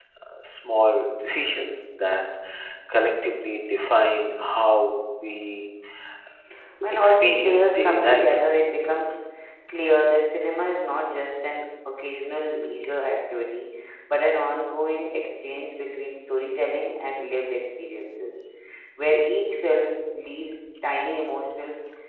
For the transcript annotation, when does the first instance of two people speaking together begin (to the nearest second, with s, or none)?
7 s